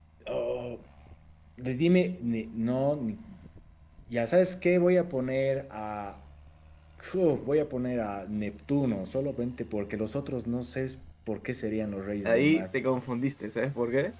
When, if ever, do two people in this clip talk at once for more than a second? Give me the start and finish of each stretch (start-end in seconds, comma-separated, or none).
none